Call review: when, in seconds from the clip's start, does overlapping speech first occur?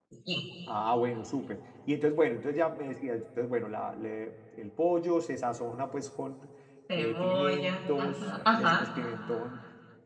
7.0 s

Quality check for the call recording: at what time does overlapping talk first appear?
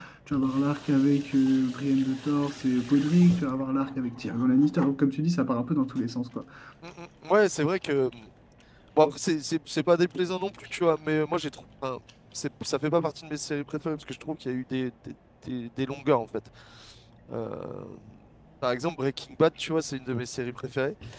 none

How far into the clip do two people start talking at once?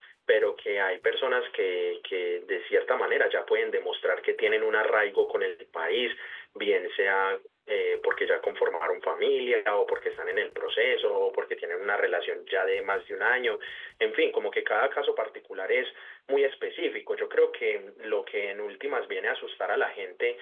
none

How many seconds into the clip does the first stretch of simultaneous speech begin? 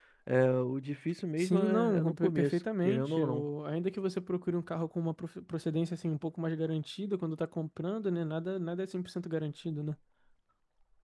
1.4 s

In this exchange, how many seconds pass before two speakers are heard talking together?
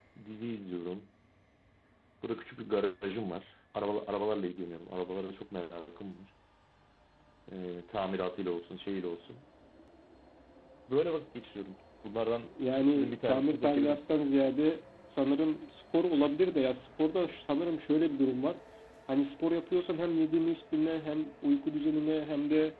12.6 s

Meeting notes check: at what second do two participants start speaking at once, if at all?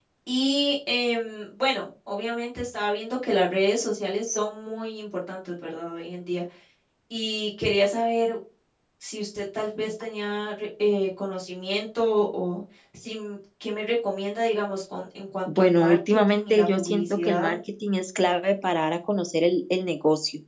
15.5 s

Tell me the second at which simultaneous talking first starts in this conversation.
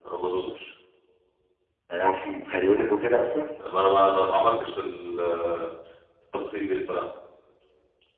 none

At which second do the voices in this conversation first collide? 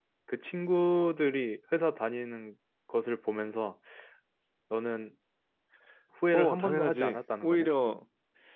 6.3 s

